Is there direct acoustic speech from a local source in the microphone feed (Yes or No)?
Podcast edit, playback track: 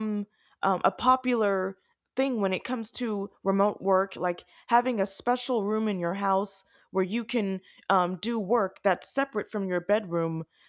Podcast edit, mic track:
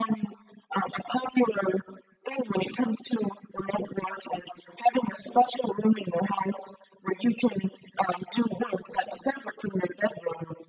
No